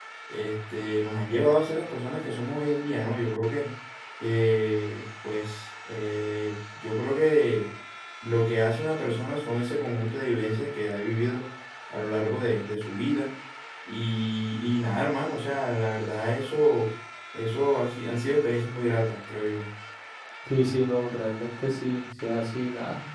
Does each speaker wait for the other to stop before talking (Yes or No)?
Yes